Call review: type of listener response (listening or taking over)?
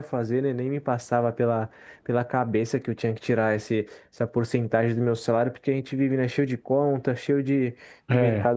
listening